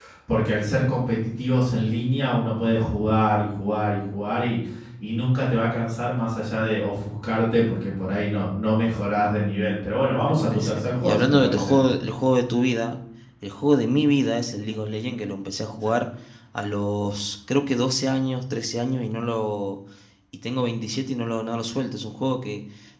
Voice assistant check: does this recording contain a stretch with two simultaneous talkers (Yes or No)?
Yes